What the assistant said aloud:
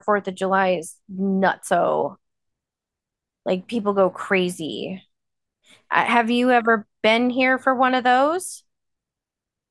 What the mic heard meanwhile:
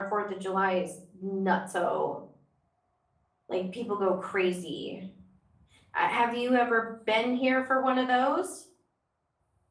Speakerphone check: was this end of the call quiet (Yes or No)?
Yes